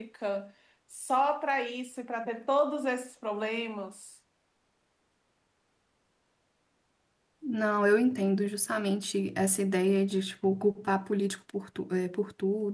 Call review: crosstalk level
none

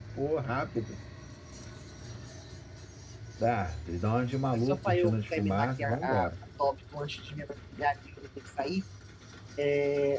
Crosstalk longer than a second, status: present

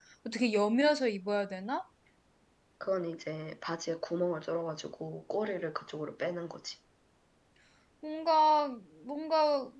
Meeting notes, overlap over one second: none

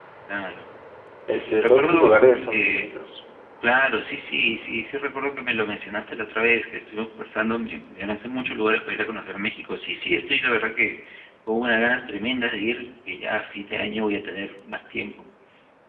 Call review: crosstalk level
present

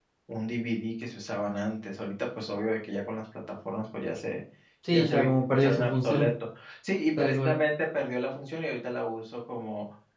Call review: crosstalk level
present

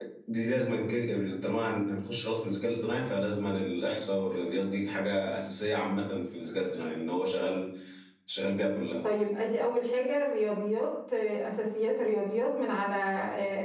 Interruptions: none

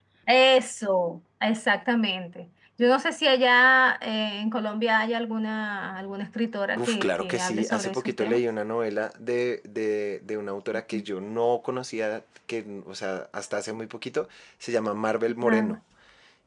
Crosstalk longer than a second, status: present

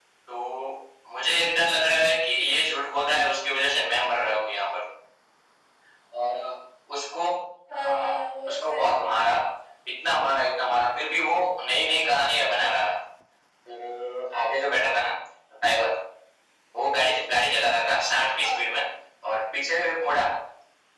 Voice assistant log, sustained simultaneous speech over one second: present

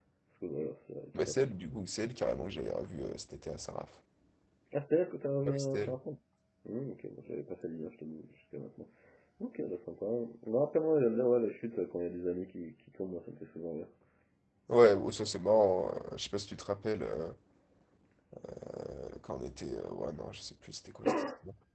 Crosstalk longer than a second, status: none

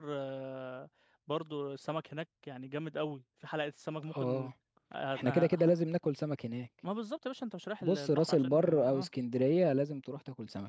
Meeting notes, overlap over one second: present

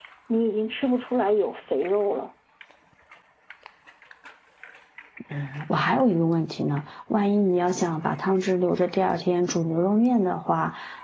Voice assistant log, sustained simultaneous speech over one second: none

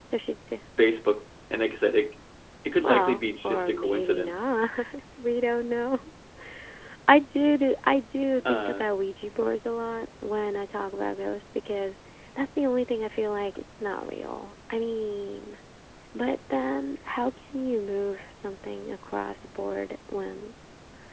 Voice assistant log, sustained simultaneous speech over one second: present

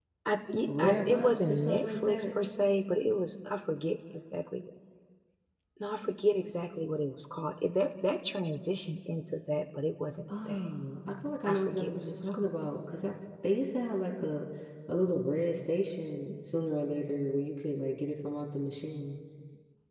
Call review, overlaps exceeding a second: present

